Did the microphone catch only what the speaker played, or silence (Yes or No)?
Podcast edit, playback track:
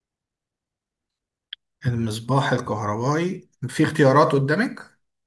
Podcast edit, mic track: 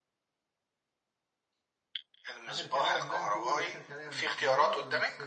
No